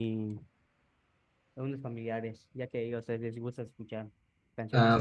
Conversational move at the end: taking over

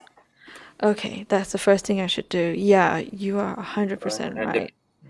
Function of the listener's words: taking over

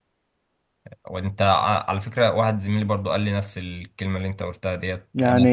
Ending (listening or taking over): listening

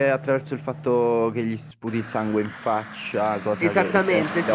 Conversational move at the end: taking over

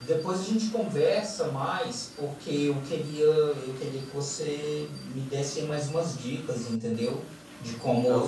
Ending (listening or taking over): listening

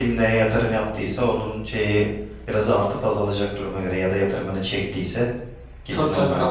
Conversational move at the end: taking over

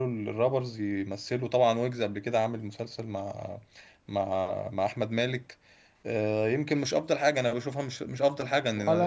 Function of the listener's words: taking over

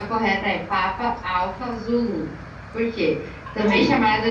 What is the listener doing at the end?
listening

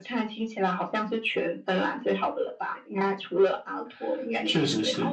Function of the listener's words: taking over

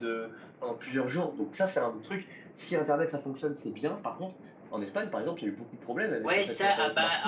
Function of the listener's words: taking over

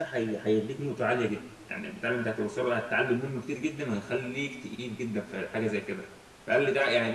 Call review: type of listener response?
listening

